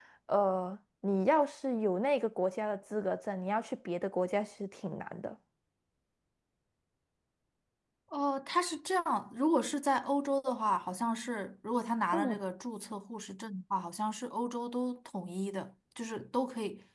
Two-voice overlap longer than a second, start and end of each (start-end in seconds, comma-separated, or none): none